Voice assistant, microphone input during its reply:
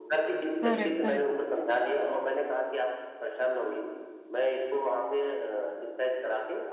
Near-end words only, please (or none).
करेक्ट, करेक्ट।